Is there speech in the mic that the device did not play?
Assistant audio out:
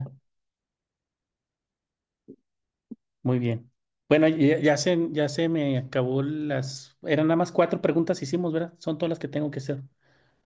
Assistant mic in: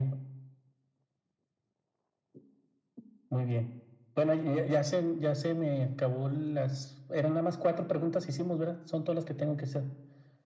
No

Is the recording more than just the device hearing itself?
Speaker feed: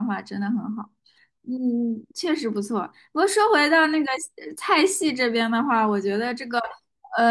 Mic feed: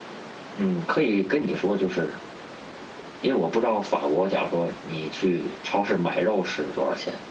Yes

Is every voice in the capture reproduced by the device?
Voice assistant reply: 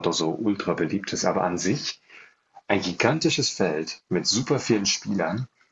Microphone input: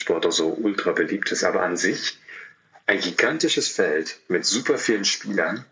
Yes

